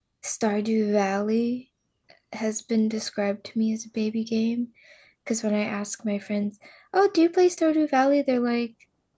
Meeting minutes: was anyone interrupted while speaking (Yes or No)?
No